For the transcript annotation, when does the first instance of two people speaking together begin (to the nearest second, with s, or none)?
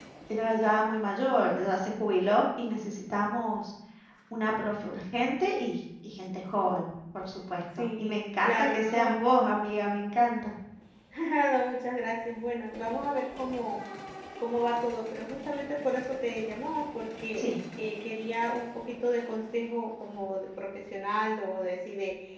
8 s